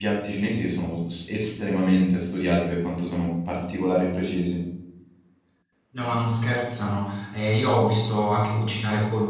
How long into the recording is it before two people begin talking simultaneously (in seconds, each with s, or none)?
none